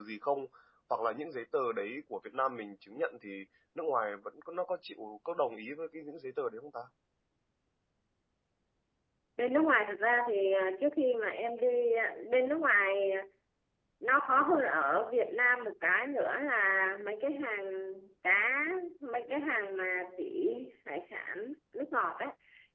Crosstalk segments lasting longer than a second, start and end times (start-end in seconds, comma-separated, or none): none